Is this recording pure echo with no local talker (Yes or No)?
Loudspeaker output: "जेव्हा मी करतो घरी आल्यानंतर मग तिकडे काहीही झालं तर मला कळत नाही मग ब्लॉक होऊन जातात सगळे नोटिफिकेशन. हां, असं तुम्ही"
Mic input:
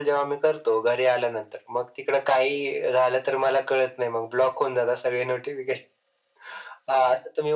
Yes